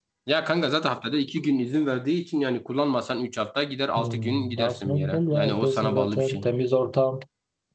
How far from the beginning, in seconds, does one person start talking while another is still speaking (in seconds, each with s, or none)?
4.0 s